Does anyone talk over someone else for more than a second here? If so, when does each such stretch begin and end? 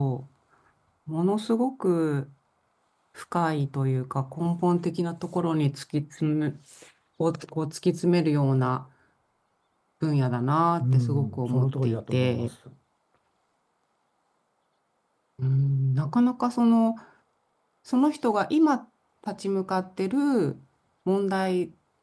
10.8-12.5

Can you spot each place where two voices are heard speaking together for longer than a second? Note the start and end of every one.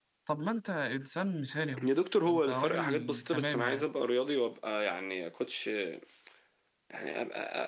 2.2-3.9

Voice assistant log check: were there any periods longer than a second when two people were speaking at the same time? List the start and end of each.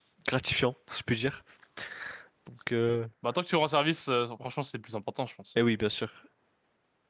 none

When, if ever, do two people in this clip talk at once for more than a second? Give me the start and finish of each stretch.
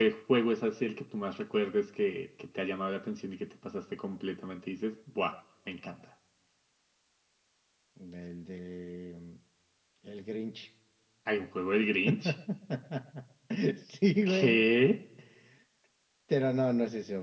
none

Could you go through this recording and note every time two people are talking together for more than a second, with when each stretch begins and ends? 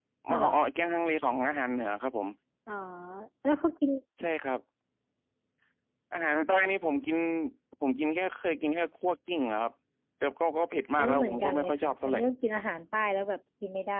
11.0-12.2

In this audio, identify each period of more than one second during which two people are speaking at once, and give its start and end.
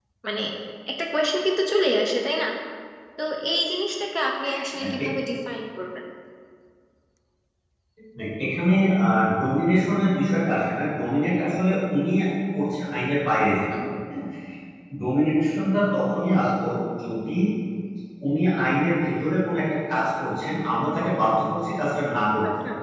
none

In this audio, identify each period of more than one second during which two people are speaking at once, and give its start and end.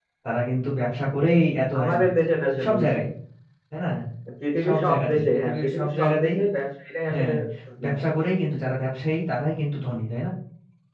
4.6-6.4

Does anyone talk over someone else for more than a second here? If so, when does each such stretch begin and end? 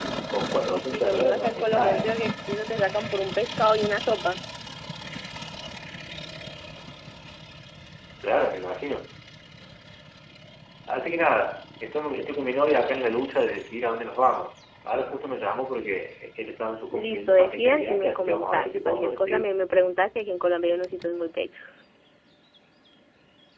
0.9-2.2, 16.9-19.5

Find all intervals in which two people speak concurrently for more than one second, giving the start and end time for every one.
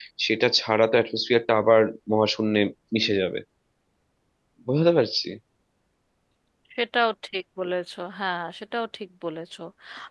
none

